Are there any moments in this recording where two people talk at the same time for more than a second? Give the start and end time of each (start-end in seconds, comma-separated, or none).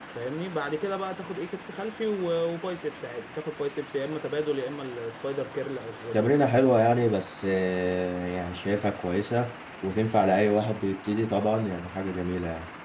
none